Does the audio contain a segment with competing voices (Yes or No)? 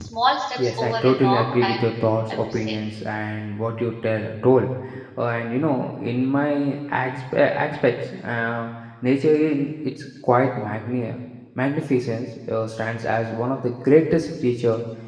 Yes